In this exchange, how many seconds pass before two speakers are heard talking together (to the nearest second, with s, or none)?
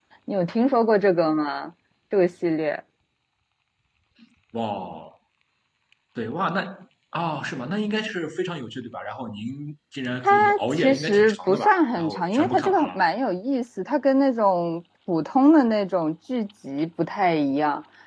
10 s